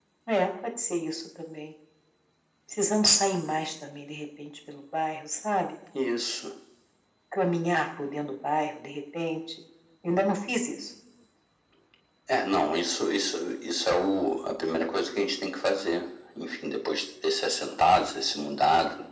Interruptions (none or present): none